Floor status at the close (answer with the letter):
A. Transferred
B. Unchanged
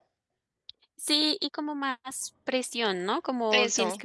B